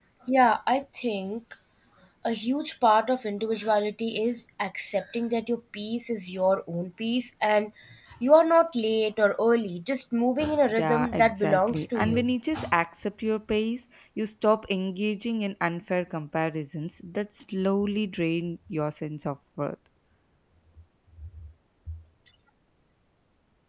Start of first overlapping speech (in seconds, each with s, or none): 10.7 s